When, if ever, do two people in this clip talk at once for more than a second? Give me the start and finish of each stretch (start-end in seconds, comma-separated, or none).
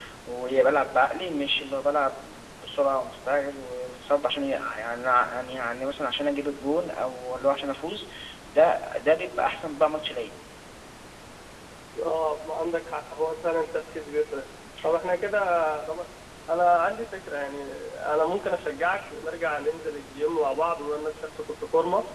none